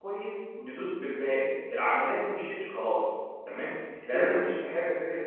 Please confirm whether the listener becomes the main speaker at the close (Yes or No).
No